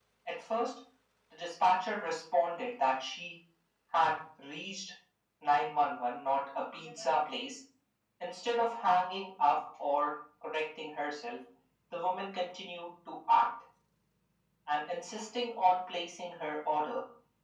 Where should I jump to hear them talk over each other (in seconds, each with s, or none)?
none